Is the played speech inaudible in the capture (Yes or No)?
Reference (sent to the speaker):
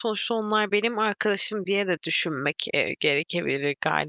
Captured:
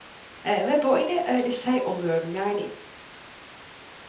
Yes